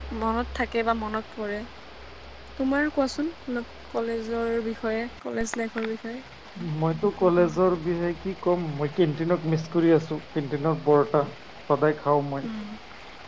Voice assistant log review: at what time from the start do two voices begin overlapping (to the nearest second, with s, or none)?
none